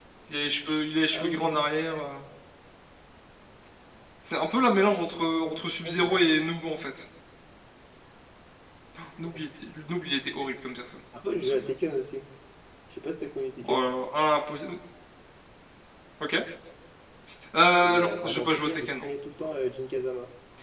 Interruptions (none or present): present